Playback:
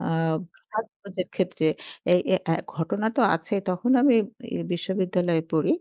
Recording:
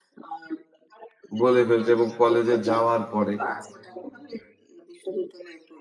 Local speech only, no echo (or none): বলে ফেলছে এবং কলেজে যাওয়ার পরে।